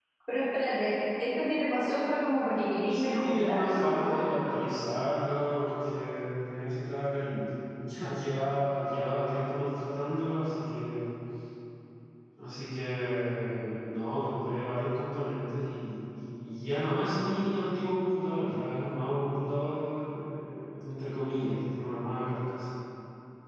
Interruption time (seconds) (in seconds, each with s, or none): 2.9 s